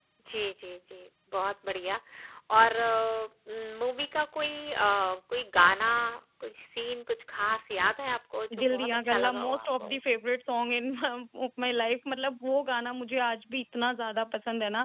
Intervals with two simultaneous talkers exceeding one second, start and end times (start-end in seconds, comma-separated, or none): 8.6-10.0